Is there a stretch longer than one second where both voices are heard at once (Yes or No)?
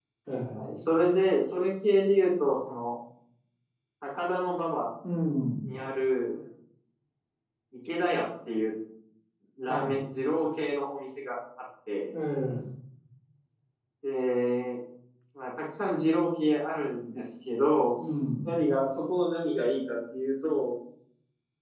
No